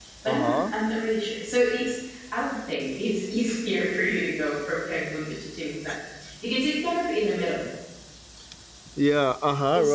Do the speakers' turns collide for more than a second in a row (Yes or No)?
No